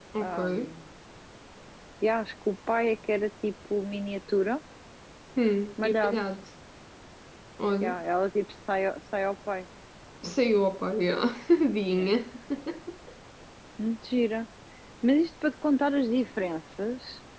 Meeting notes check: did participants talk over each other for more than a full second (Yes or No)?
No